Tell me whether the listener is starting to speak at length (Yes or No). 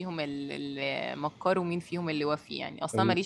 No